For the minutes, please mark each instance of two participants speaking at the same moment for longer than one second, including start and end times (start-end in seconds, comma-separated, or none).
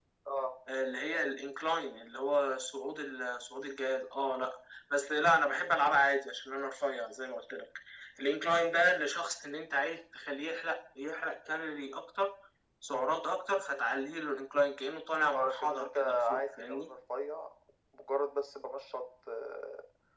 15.3-16.9